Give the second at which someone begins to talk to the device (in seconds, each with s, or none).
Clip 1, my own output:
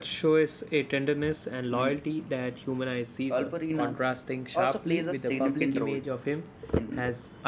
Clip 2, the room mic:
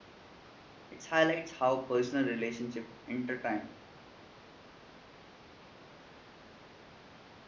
0.9 s